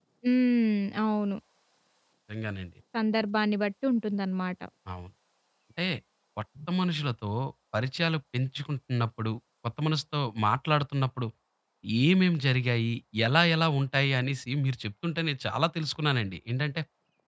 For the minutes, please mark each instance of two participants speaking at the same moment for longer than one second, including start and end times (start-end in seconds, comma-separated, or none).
none